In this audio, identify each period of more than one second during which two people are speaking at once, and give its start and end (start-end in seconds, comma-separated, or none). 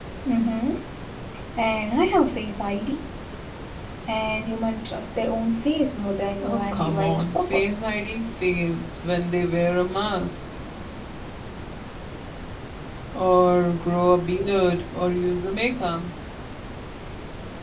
6.4-8.0